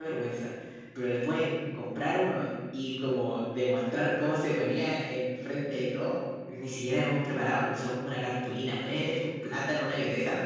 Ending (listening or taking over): listening